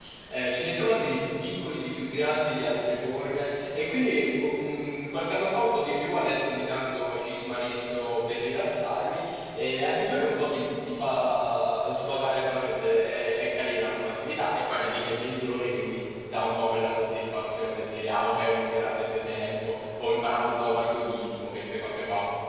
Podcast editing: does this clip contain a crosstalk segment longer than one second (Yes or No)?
No